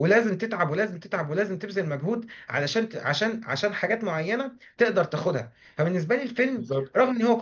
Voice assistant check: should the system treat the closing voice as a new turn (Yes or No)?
No